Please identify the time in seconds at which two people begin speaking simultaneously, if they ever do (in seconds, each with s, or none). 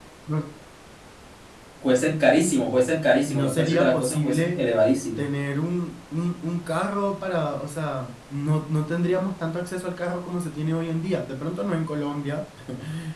3.3 s